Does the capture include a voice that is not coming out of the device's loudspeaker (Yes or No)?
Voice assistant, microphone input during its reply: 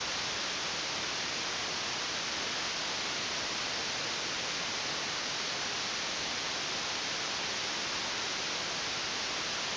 No